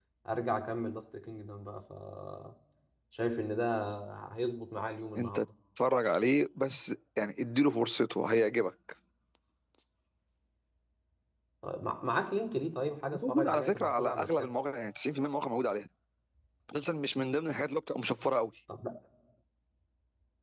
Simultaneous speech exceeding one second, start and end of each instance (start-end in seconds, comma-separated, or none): 13.1-14.5